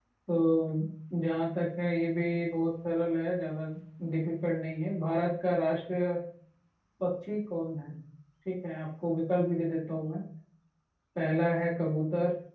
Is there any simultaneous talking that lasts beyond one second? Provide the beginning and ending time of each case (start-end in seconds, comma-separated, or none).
none